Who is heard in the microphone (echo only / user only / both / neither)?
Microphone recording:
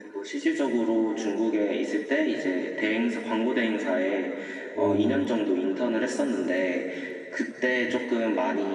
both